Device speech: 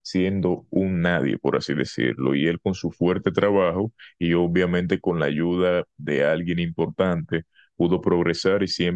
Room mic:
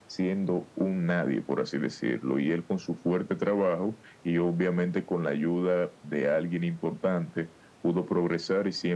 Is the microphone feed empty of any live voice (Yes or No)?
Yes